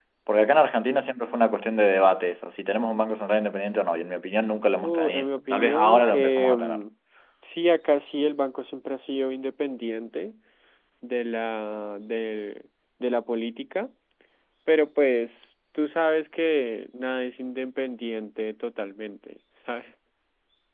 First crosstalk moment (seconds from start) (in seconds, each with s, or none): 4.8 s